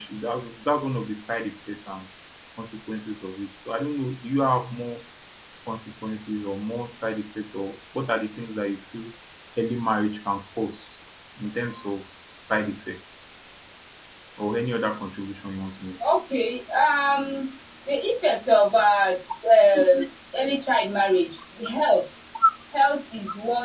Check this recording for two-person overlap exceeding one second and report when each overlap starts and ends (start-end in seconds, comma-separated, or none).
none